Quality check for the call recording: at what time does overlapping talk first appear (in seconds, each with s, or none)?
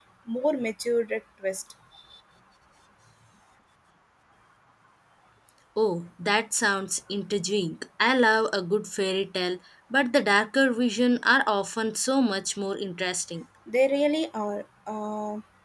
none